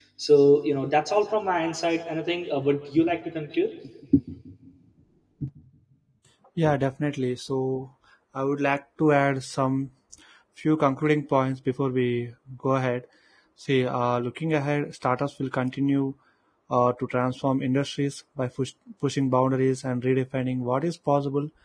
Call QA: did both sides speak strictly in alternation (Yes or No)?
Yes